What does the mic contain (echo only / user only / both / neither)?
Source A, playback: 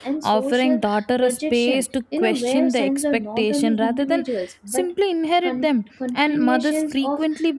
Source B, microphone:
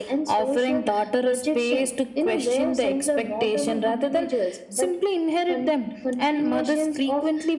echo only